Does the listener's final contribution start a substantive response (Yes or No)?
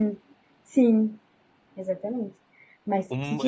Yes